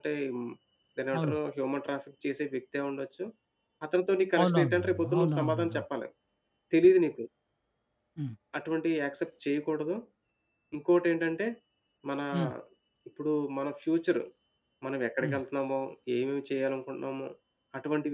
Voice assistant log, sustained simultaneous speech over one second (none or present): present